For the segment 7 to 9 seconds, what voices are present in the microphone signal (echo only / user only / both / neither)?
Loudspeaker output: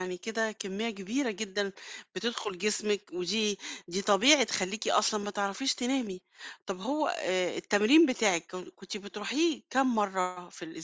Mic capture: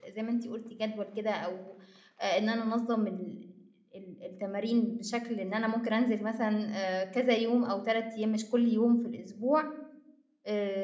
user only